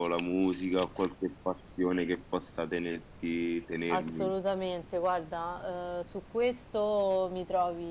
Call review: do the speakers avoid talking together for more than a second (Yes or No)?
Yes